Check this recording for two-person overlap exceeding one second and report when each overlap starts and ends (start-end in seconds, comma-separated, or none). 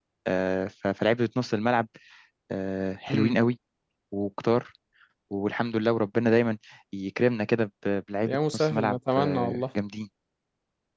8.3-9.6